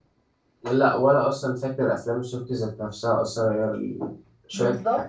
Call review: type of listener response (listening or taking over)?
taking over